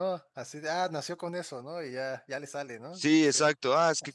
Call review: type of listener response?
taking over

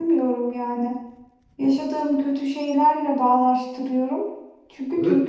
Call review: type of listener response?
taking over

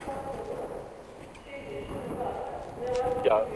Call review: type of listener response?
taking over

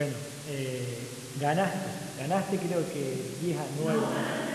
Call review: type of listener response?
taking over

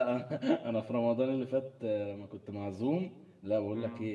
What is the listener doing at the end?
listening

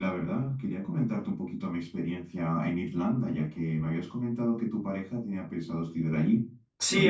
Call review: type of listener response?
taking over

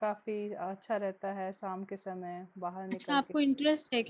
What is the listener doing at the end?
taking over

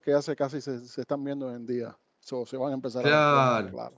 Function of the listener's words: taking over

